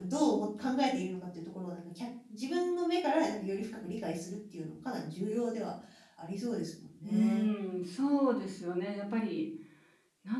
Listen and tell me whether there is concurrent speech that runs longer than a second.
No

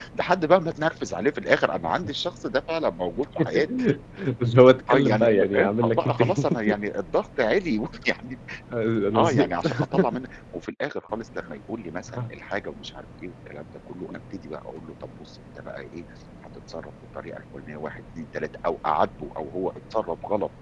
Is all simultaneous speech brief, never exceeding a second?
No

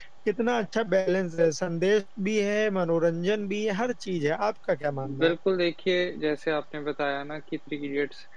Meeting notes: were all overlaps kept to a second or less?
Yes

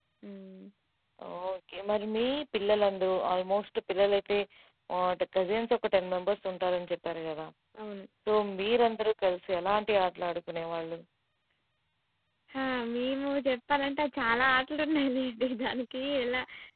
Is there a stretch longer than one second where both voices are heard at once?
No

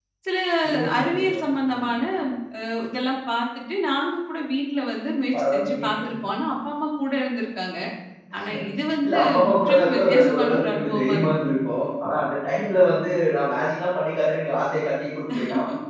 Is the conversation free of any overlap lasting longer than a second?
No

